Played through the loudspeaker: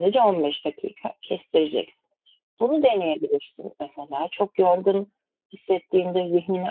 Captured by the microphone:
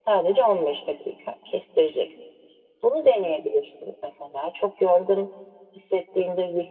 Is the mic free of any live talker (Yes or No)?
Yes